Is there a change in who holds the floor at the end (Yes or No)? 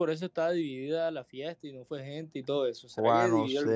Yes